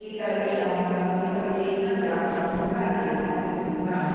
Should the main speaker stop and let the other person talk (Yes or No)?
No